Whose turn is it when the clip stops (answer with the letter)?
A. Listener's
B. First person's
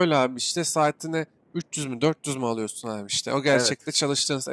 B